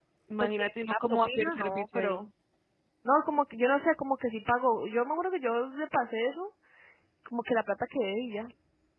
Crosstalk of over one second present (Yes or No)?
Yes